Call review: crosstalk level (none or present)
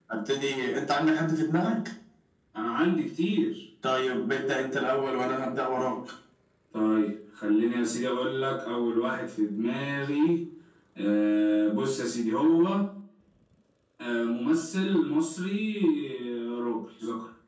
none